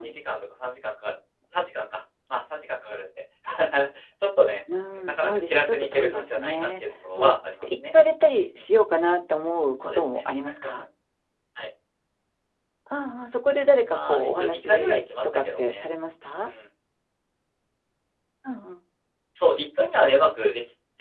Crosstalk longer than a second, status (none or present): present